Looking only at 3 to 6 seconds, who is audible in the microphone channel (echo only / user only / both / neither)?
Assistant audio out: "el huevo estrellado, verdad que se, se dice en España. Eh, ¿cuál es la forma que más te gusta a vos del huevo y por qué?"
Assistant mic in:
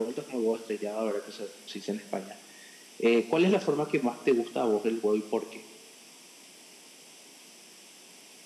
echo only